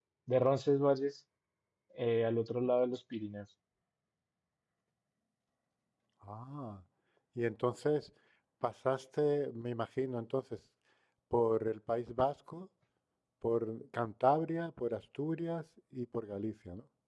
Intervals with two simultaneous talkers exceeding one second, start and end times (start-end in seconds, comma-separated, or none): none